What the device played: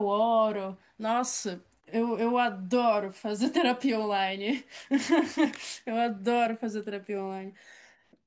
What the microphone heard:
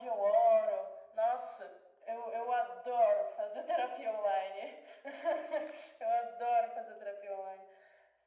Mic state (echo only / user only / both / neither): echo only